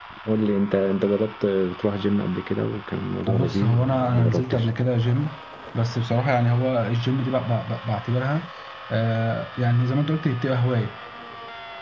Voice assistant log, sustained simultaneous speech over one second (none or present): present